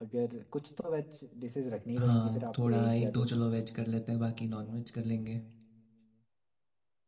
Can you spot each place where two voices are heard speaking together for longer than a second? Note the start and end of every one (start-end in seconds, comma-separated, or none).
2.0-3.3